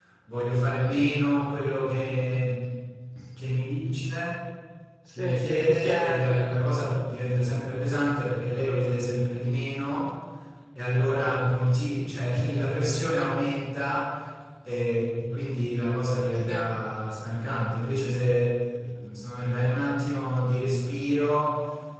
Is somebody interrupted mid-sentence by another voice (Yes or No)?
Yes